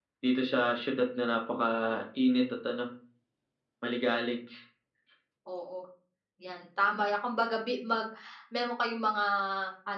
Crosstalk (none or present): none